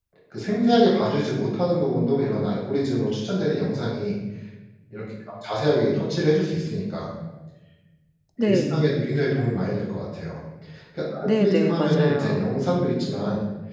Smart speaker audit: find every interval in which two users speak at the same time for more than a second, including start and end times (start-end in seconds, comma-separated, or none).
11.2-12.5